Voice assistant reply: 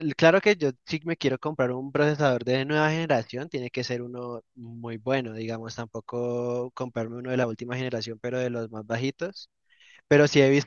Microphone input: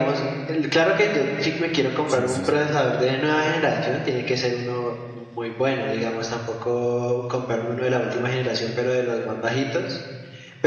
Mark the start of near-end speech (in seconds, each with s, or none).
2.0 s